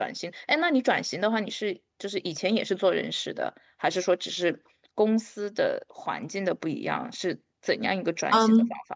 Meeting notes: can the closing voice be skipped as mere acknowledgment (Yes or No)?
No